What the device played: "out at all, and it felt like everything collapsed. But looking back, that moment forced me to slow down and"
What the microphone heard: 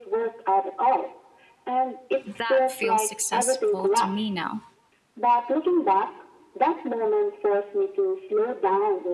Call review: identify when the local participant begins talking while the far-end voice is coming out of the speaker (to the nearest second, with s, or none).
2 s